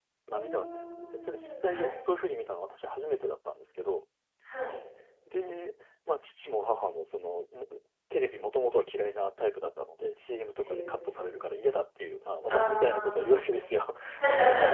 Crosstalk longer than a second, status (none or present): present